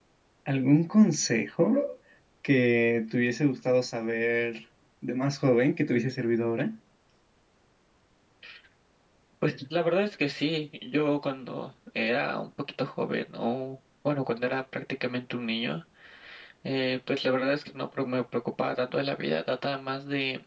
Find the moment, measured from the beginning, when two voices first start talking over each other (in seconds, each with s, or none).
none